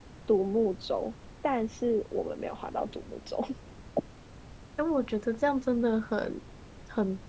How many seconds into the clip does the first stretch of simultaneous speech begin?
none

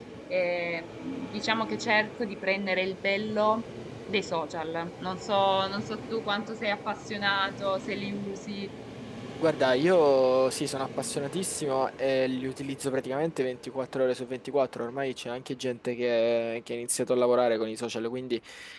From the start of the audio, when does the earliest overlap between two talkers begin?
none

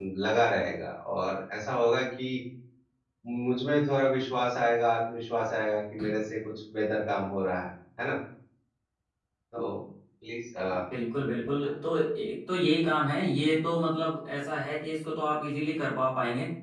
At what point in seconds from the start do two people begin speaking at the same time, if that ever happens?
none

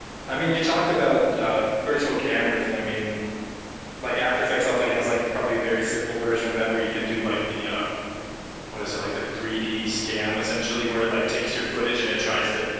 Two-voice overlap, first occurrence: none

